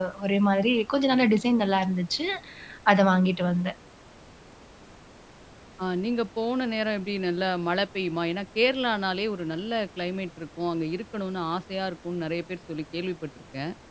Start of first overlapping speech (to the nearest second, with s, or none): none